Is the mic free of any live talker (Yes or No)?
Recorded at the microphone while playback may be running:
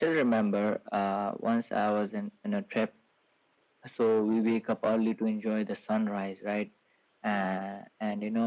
Yes